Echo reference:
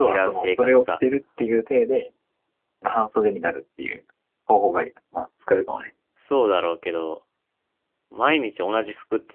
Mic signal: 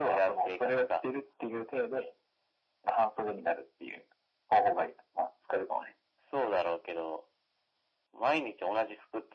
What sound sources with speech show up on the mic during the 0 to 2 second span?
echo only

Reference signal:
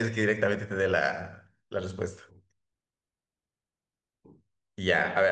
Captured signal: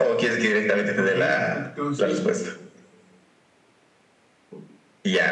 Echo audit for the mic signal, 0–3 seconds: both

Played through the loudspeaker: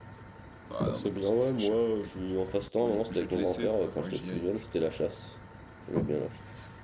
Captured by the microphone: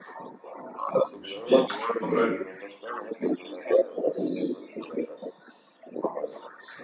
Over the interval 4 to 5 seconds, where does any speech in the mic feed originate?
echo only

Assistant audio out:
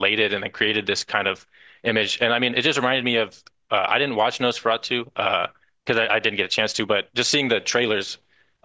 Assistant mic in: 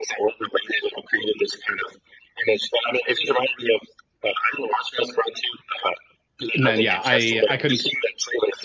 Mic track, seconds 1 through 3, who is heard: echo only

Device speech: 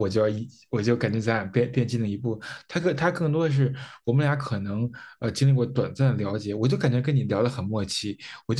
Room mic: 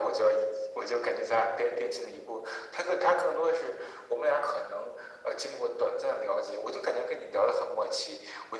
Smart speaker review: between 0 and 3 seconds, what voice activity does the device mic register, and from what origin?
echo only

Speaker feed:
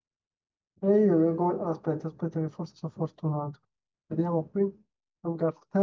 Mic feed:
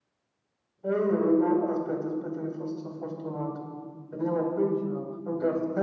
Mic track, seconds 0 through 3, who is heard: echo only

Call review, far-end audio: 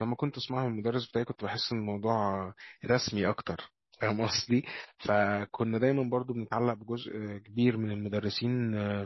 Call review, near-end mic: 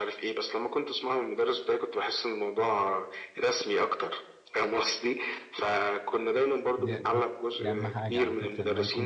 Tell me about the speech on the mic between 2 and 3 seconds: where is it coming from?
echo only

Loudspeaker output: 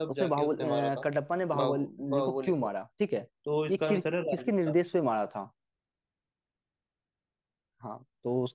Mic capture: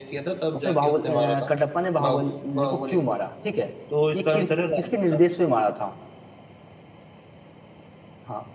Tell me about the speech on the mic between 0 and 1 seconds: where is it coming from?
echo only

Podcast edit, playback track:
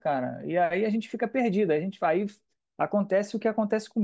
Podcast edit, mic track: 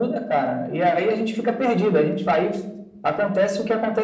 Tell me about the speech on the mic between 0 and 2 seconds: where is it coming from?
echo only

